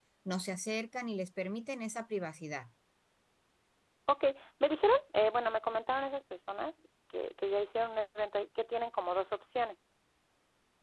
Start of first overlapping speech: none

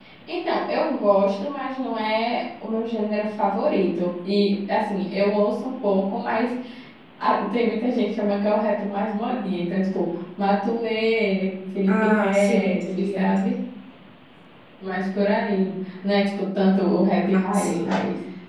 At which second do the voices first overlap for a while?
11.9 s

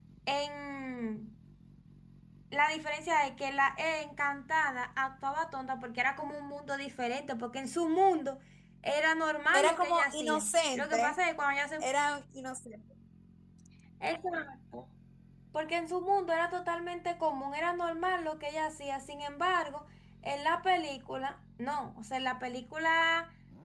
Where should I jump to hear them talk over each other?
9.5 s

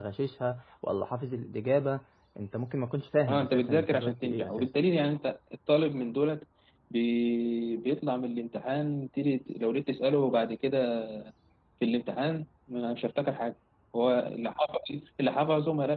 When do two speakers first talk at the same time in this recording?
3.3 s

